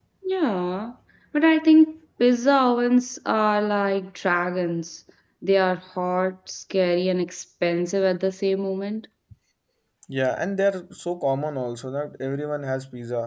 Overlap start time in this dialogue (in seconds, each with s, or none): none